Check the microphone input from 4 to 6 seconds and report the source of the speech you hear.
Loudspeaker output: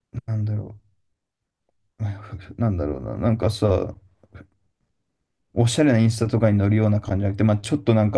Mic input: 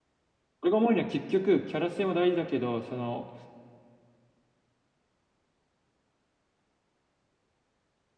neither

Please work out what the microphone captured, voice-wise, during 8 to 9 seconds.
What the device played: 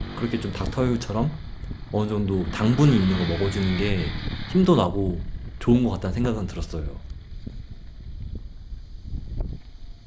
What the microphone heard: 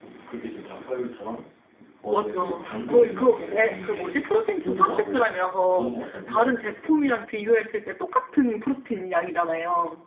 user only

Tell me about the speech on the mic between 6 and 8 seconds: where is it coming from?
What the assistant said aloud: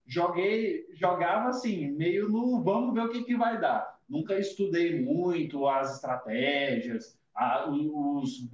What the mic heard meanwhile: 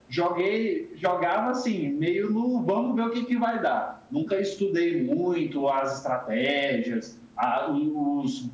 echo only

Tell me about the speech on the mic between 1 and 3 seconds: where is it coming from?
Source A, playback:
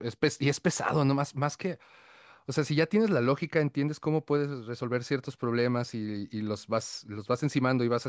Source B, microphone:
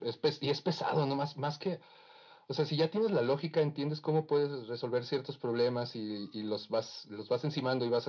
echo only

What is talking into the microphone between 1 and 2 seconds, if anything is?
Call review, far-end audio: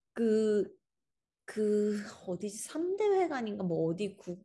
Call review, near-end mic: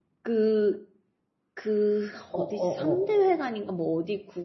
echo only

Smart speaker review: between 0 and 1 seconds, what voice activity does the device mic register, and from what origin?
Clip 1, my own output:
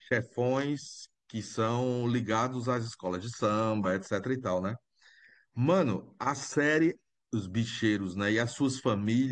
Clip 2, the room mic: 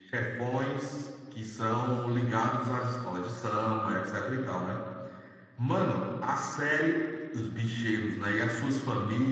echo only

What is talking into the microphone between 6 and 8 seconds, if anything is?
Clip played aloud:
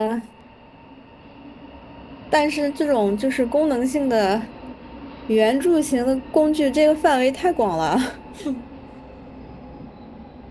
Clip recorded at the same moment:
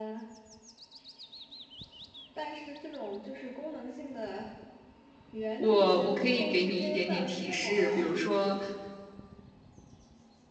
both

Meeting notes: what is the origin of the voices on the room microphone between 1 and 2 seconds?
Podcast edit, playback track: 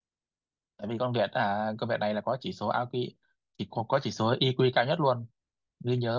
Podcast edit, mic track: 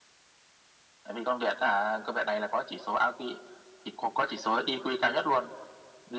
echo only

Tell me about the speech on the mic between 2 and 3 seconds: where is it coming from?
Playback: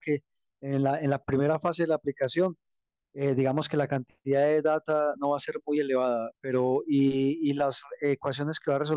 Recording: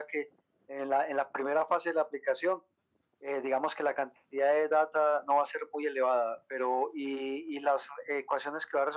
echo only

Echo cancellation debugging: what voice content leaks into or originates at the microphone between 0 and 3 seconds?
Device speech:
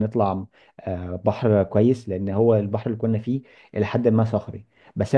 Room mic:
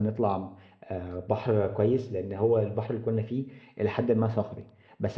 echo only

